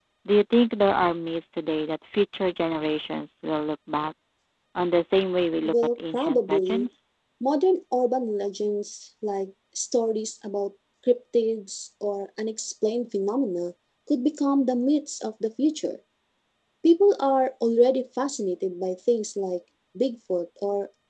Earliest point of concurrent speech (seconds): 6 s

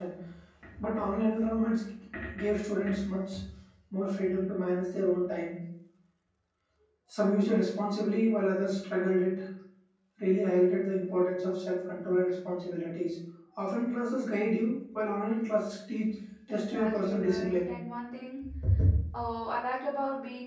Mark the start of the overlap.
16 s

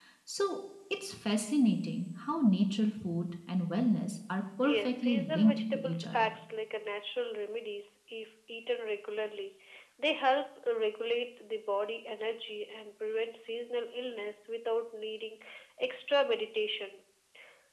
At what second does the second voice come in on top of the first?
5 s

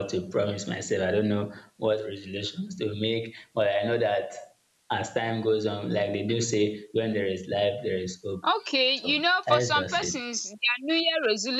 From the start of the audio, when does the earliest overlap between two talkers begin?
9 s

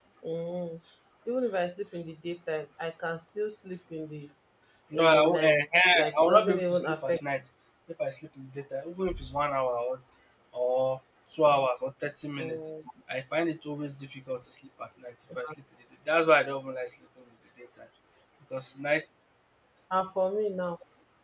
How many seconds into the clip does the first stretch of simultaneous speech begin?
5 s

